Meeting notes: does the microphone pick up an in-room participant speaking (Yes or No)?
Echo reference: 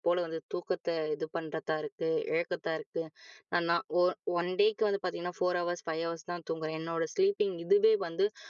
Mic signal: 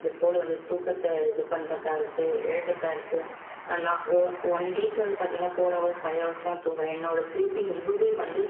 No